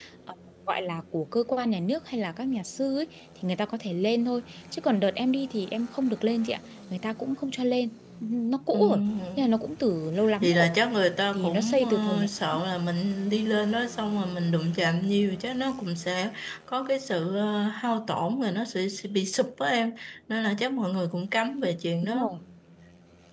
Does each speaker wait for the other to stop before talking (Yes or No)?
No